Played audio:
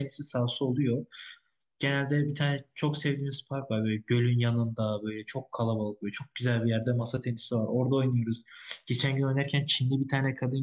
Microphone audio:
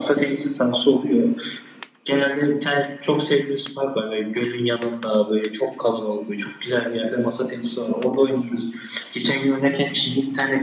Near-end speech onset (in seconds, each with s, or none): none